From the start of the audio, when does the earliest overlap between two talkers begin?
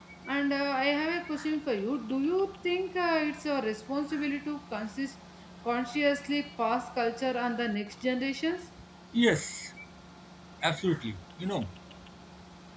none

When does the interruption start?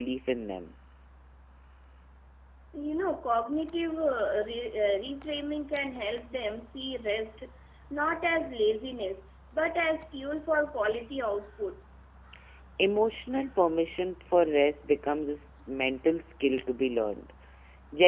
none

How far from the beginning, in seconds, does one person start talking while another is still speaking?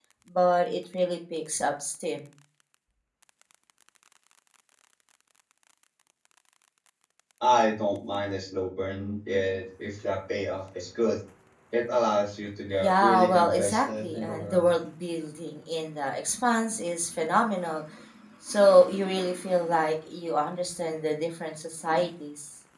13 s

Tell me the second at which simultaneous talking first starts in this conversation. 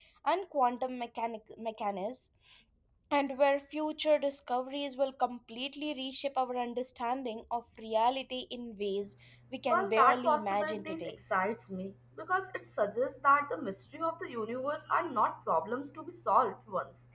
10 s

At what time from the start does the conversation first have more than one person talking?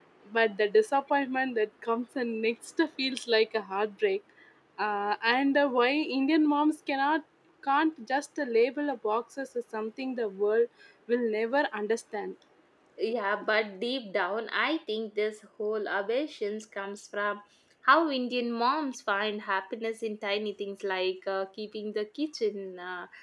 none

